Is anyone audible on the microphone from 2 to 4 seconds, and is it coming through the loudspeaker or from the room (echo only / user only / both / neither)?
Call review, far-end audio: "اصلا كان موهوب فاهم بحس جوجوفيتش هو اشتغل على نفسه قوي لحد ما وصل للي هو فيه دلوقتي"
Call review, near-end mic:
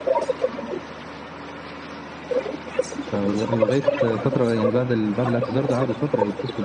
both